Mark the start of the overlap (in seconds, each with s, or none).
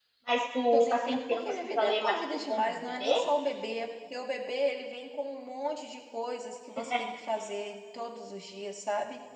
0.7 s